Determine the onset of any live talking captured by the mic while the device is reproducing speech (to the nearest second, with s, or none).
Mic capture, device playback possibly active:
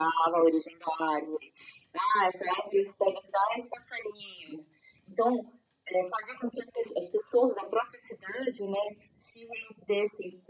none